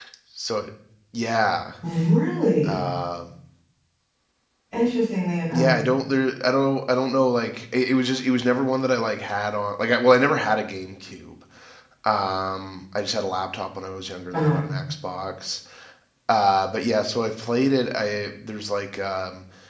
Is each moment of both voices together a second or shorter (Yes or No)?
Yes